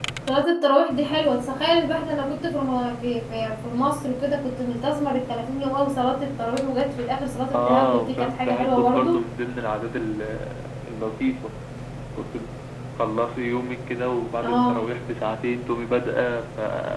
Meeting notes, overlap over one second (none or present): present